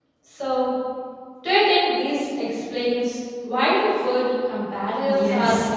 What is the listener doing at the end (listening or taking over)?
taking over